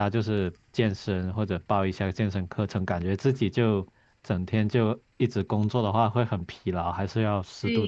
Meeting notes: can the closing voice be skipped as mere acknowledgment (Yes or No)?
No